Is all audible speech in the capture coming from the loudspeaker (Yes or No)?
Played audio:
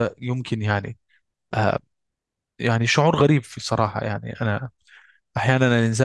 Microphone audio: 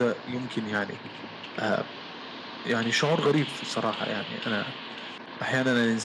Yes